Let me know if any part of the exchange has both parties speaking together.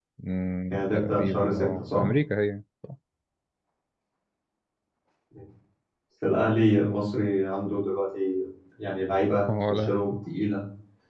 Yes, from 0.7 s

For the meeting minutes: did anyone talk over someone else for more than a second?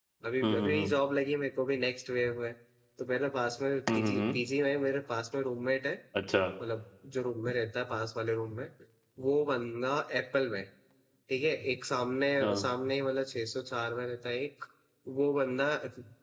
No

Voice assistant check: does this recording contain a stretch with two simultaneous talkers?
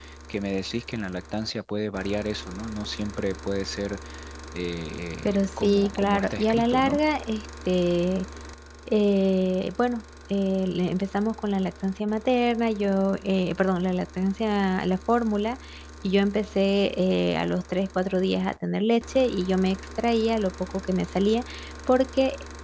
Yes, from 5.2 s

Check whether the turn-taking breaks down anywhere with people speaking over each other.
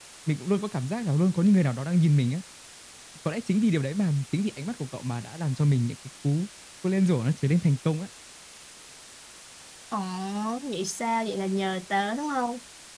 No

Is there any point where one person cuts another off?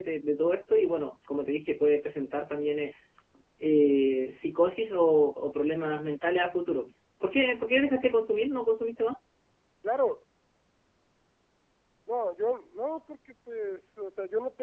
No

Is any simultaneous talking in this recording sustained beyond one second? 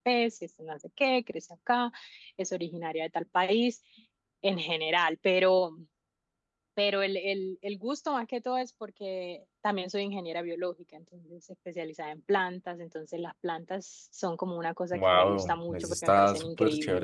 Yes, from 14.9 s

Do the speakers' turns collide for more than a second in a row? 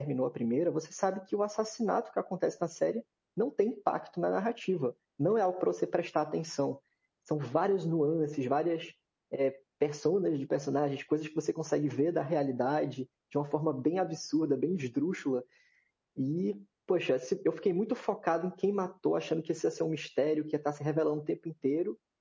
No

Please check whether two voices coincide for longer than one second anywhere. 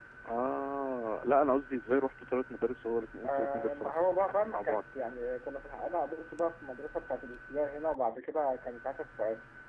Yes, from 3.2 s

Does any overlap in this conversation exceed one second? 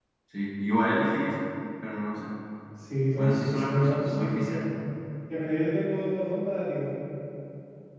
Yes, from 3.2 s

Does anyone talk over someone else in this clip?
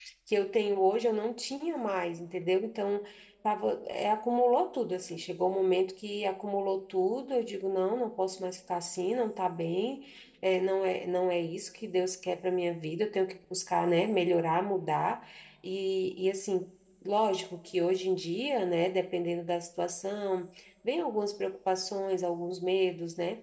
No

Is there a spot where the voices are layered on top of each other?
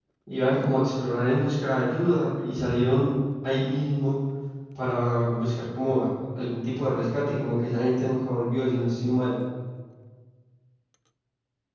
No

